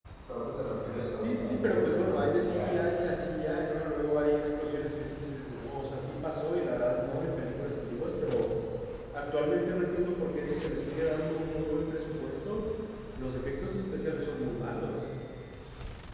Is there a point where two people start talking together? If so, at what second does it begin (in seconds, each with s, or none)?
1.1 s